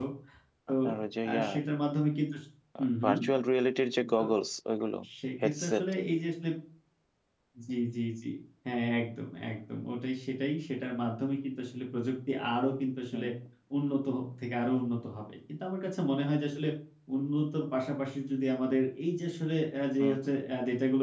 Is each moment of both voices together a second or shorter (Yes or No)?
Yes